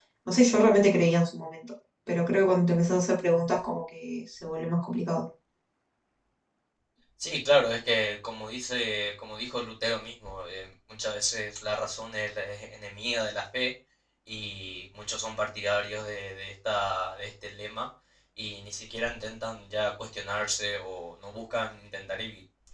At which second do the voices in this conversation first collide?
none

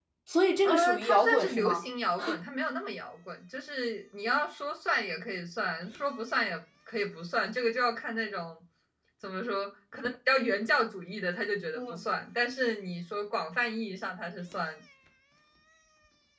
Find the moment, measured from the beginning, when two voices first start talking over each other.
0.6 s

